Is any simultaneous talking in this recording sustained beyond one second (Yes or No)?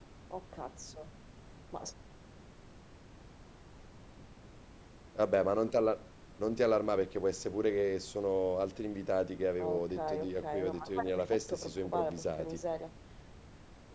Yes